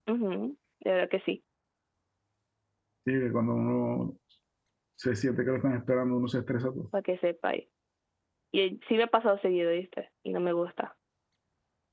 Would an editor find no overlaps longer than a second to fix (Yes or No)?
Yes